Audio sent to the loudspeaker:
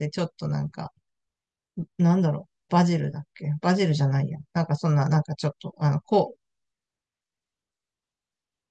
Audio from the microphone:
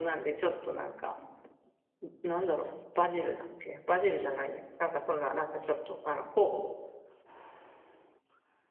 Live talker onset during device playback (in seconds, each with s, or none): none